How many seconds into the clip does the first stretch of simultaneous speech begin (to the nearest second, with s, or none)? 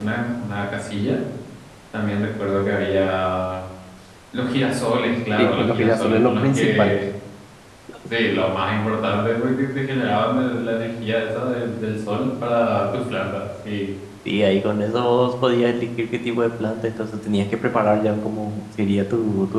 5 s